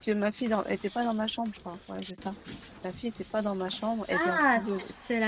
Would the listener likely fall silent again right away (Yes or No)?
No